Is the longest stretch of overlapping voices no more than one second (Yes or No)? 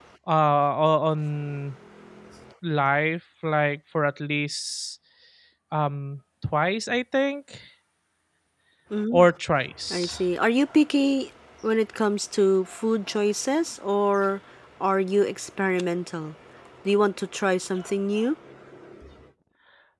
Yes